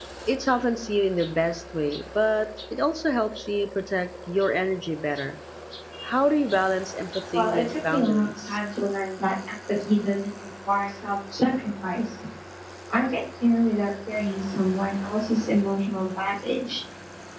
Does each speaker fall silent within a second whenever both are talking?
No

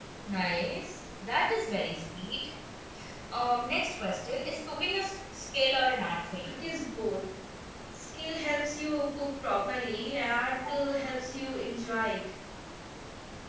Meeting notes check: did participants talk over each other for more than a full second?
No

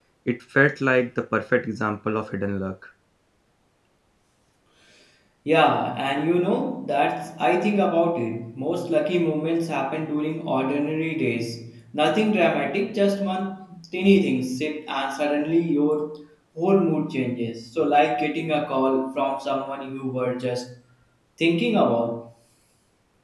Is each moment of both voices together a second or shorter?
Yes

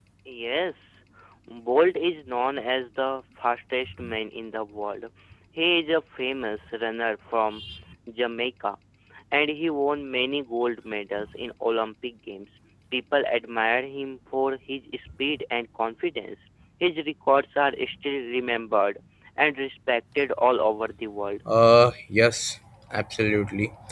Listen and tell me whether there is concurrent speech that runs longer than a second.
No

